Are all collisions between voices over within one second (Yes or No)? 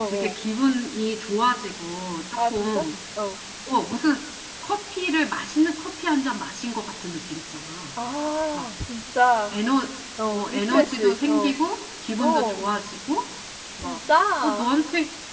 No